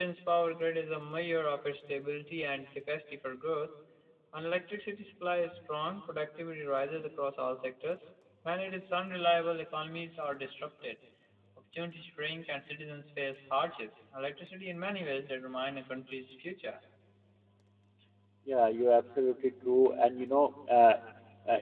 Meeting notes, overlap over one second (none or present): none